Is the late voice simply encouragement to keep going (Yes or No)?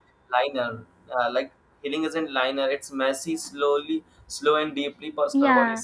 No